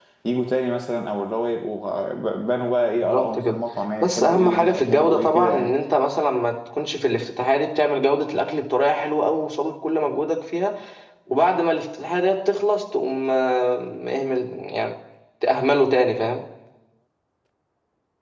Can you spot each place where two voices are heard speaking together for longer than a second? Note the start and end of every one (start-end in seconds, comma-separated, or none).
4.0-5.7